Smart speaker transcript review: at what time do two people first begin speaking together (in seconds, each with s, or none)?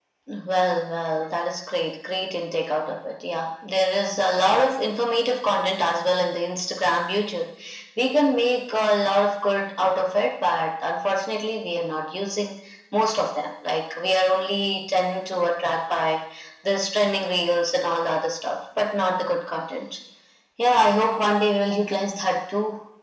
none